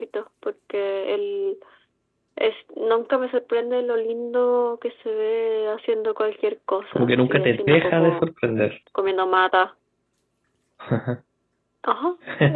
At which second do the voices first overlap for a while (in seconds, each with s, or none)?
6.9 s